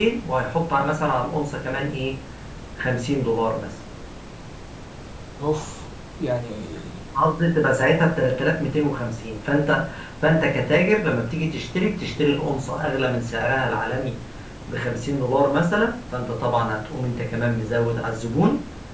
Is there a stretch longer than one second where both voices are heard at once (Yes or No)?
No